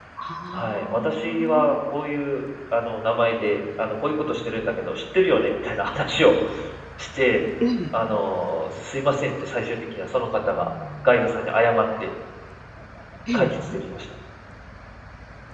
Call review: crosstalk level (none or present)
present